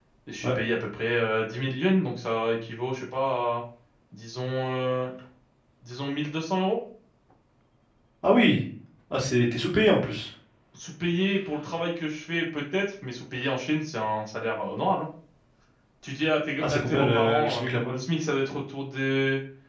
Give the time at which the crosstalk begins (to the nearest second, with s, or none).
17 s